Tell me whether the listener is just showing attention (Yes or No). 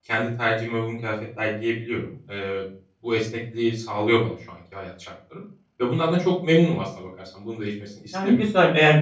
No